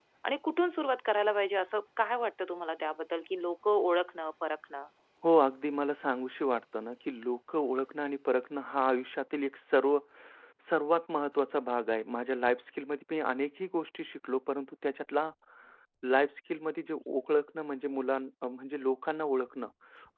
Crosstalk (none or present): none